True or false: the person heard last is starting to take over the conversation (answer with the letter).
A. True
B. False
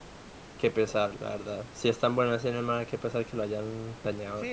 A